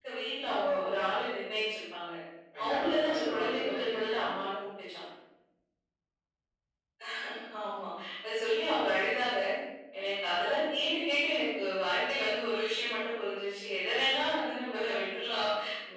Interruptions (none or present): present